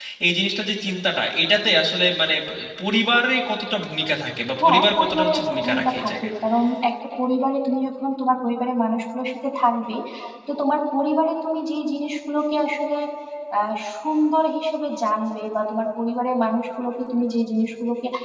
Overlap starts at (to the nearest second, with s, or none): 5 s